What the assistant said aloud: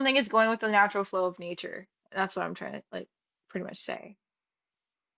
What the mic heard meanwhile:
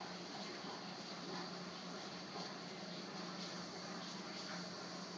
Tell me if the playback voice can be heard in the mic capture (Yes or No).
No